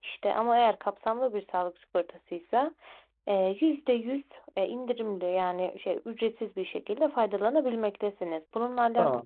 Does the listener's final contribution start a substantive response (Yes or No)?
Yes